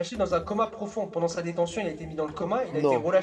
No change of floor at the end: Yes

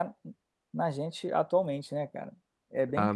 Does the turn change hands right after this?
Yes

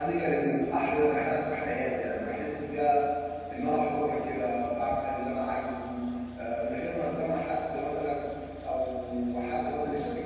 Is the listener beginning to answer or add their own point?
No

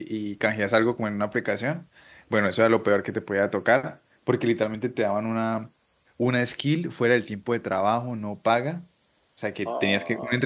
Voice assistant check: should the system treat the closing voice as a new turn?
No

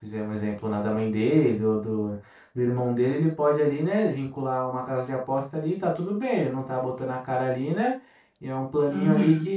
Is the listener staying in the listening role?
Yes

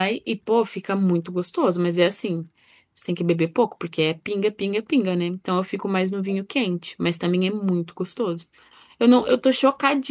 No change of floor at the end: Yes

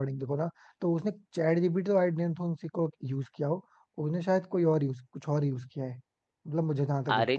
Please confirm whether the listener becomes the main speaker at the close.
Yes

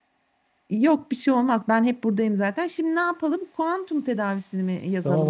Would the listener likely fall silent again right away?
No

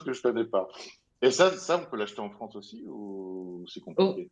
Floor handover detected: Yes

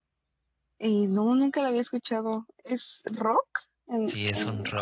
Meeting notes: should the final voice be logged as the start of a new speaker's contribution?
Yes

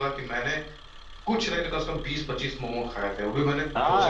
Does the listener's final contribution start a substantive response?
Yes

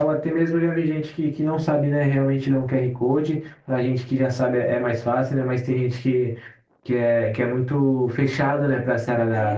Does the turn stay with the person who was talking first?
No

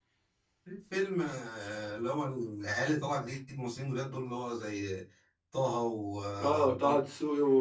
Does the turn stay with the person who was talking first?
No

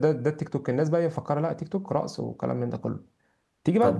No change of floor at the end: No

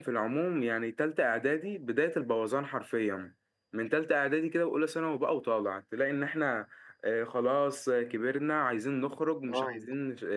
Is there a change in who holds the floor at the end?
No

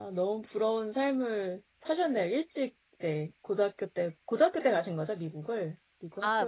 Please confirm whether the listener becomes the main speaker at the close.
Yes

